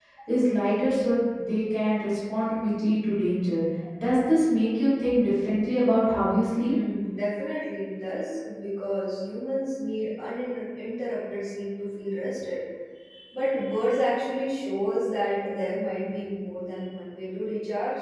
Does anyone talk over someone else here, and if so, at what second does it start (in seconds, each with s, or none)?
none